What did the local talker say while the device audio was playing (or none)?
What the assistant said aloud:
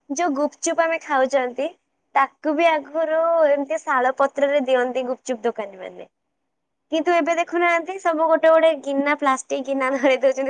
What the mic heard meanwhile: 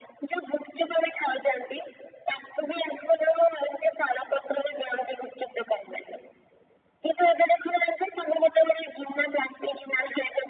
none